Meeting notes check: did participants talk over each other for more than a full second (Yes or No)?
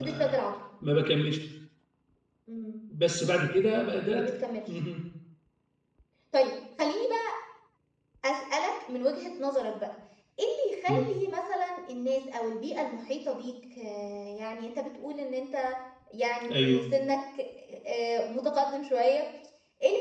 No